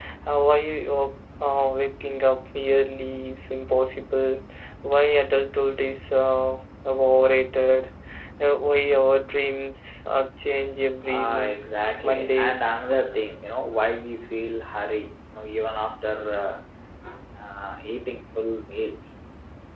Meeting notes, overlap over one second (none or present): present